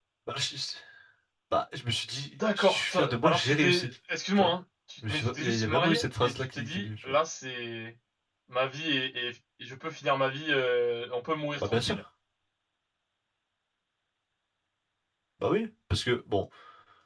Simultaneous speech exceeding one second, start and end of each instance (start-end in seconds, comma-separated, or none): 2.5-3.9, 5.1-7.2